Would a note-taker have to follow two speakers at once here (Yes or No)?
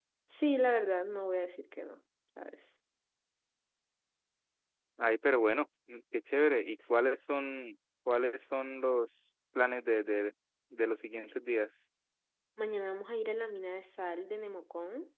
No